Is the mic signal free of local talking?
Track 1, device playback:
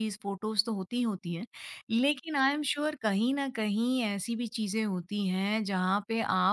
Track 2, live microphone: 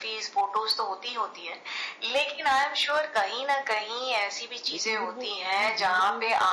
No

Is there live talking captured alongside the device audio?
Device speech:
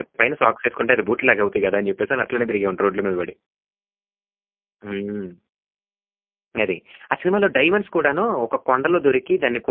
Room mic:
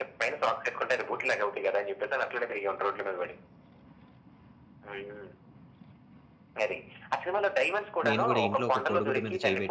Yes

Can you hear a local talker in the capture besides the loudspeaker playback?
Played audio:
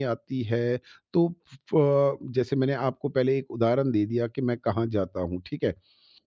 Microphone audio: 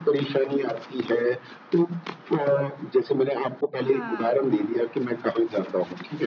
Yes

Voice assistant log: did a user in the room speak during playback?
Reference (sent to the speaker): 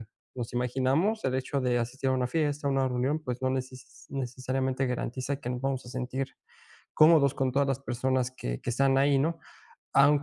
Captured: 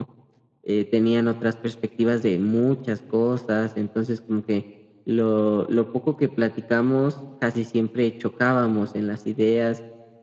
Yes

